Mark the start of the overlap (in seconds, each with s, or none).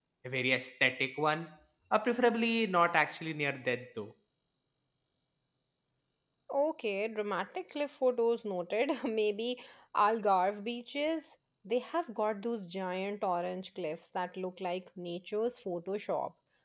none